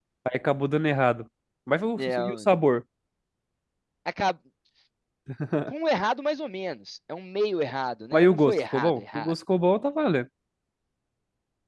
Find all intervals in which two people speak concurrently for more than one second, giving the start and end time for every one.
8.1-9.3

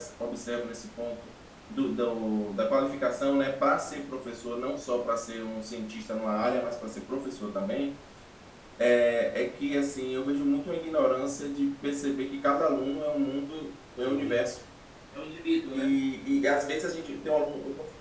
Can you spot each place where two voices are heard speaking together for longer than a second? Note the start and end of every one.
none

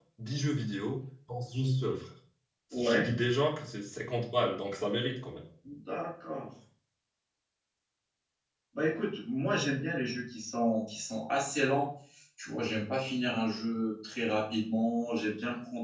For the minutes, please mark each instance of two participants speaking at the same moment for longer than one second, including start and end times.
none

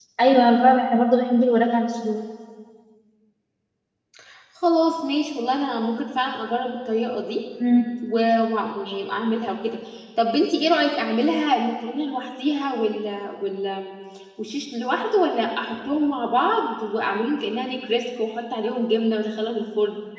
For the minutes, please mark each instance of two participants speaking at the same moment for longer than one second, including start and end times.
none

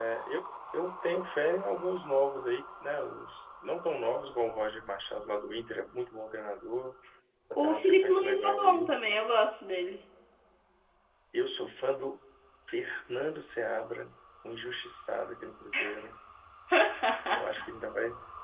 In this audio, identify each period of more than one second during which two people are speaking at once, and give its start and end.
7.5-8.9

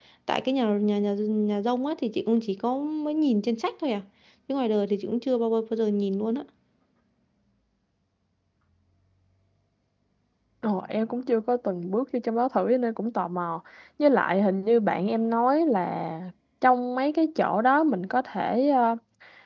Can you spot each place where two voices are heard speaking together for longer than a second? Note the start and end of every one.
none

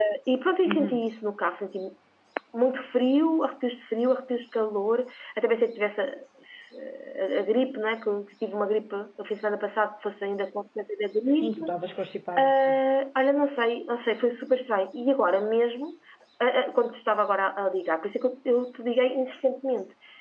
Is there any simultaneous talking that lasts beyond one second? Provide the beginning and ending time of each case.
none

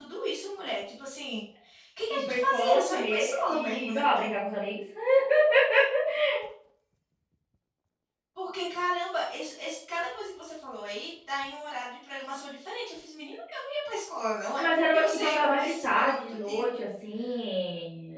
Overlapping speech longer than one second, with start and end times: 2.1-4.0, 14.6-16.6

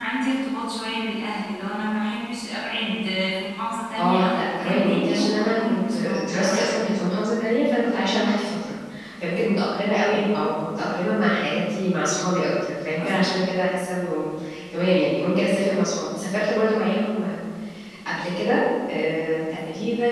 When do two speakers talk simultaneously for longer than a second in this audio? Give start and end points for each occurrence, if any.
4.0-6.8

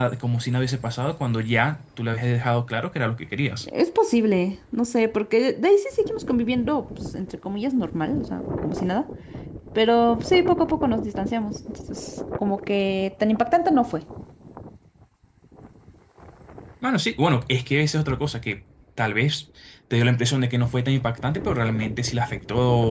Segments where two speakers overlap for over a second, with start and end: none

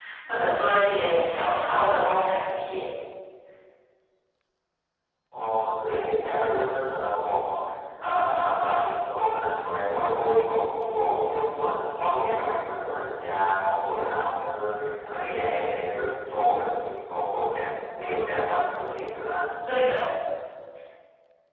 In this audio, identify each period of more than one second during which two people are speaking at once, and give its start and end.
none

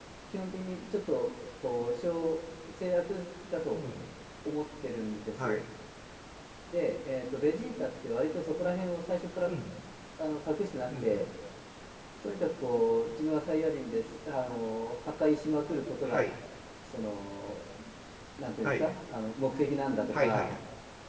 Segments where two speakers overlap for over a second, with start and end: none

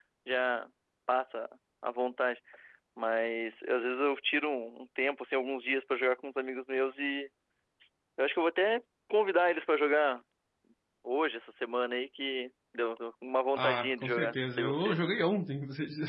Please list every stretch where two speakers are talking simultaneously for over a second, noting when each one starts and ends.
13.6-14.9

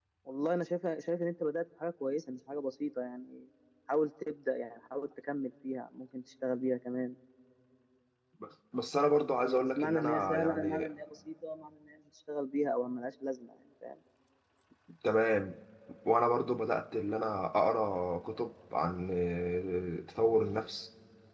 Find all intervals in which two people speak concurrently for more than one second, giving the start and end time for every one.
9.4-10.9

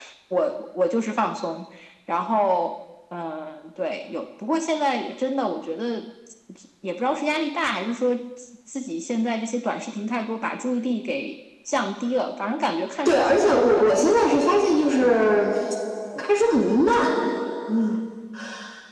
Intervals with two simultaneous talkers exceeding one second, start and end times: 13.1-14.4

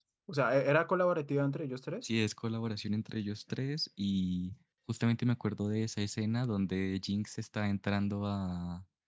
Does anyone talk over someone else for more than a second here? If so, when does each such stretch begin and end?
none

